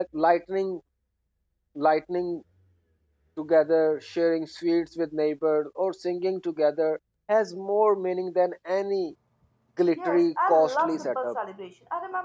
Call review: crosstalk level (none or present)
present